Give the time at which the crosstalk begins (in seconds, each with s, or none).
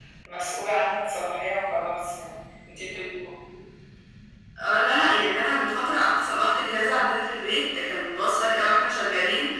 none